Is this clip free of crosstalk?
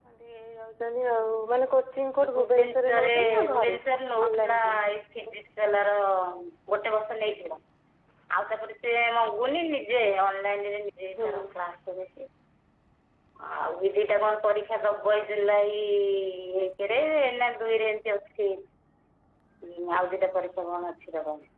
No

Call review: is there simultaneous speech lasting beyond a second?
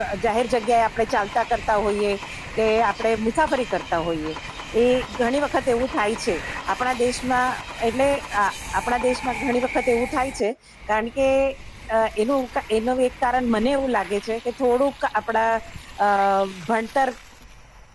No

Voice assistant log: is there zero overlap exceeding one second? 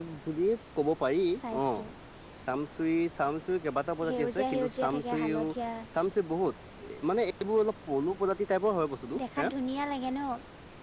No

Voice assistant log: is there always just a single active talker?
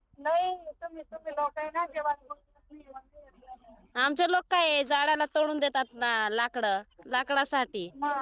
Yes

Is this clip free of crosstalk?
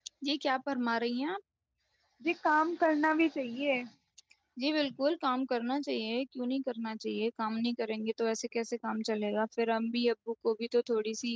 Yes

